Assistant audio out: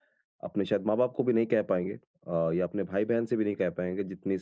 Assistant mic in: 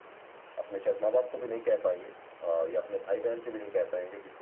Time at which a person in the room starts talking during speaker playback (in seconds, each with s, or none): none